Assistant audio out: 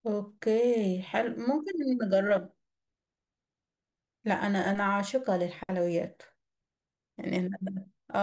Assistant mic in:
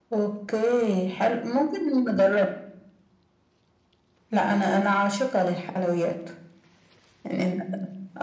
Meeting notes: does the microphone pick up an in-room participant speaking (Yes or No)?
No